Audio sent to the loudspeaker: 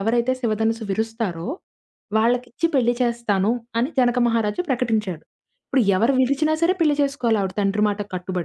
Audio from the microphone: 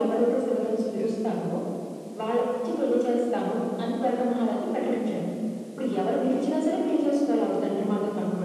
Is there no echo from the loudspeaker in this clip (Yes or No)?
No